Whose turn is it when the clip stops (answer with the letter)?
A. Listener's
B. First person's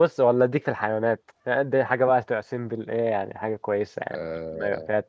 A